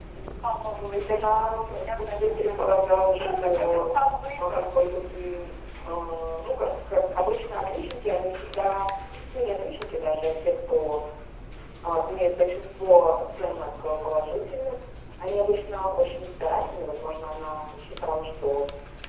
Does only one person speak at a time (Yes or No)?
No